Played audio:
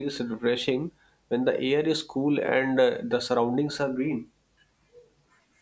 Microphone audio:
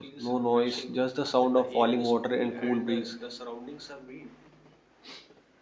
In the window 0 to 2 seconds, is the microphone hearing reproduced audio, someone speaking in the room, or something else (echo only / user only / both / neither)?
both